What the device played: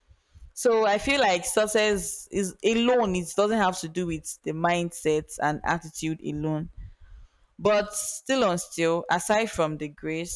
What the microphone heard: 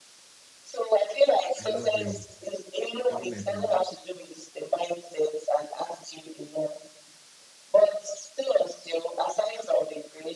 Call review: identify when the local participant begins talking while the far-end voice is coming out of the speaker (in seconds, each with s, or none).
1.6 s